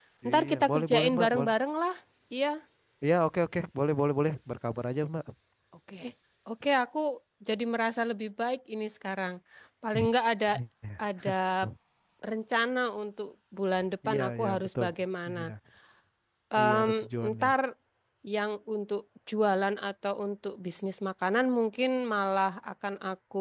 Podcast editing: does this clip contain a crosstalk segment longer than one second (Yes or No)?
Yes